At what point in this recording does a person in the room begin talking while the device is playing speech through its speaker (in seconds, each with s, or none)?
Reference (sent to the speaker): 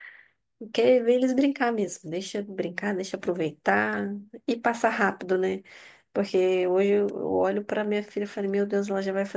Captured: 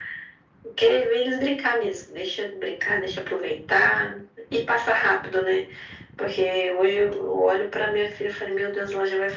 none